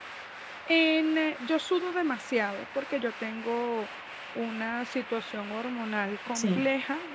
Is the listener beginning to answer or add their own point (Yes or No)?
No